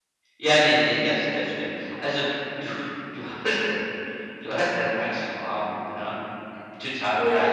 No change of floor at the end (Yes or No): No